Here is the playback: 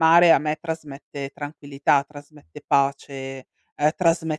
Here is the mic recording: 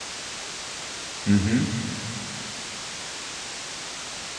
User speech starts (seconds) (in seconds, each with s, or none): 1.2 s